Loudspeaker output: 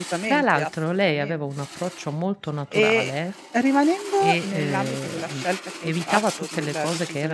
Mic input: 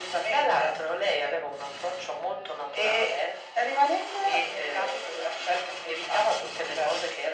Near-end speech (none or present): none